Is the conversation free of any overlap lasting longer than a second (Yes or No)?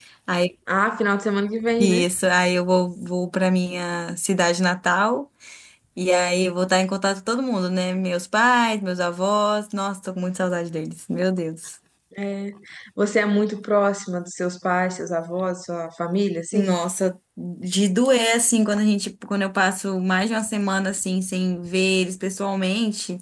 Yes